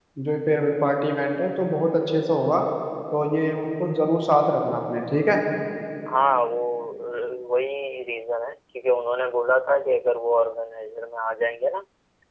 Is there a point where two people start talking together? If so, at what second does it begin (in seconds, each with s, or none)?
none